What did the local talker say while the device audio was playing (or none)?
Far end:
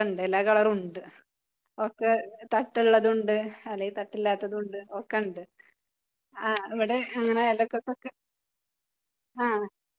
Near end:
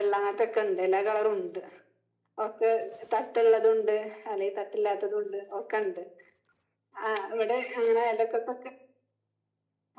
none